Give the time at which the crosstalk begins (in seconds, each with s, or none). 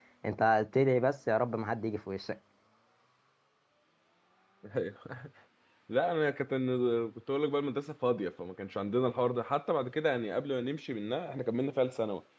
none